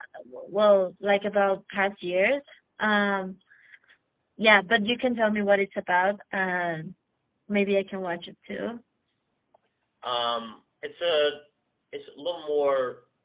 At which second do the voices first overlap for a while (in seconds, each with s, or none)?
none